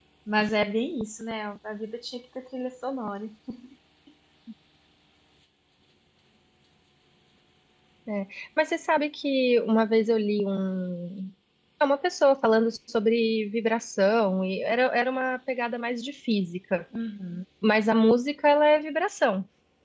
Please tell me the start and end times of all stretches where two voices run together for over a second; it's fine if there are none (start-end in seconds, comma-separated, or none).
none